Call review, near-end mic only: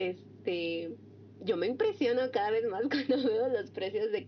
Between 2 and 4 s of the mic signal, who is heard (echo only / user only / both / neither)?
echo only